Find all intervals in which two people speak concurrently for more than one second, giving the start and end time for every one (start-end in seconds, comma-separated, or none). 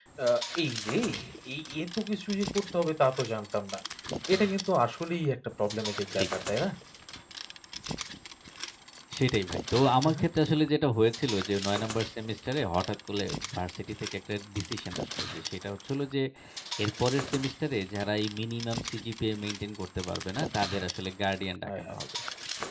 none